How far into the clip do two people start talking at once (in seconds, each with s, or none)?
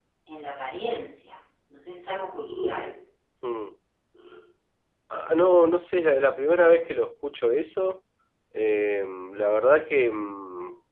none